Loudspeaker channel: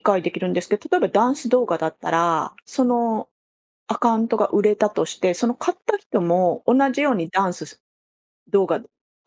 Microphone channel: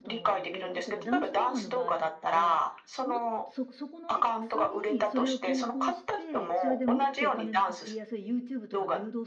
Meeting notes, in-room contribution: present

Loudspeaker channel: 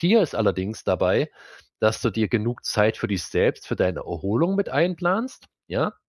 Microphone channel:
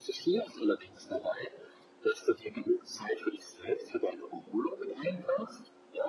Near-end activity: none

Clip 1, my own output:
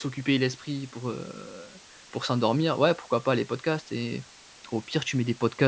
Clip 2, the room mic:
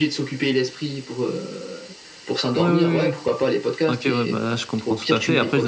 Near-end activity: present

